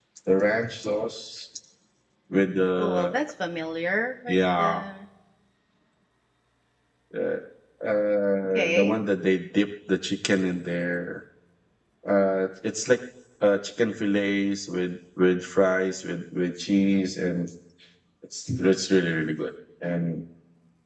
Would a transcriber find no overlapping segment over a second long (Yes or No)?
Yes